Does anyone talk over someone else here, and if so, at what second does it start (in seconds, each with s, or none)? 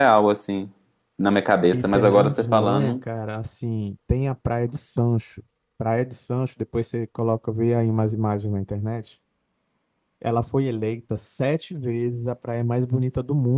1.7 s